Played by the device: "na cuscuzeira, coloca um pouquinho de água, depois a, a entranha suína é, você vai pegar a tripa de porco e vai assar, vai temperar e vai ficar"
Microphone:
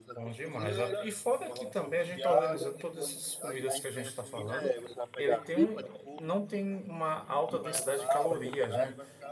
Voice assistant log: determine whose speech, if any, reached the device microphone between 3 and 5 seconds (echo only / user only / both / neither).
both